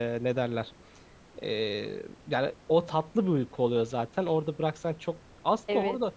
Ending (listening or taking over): listening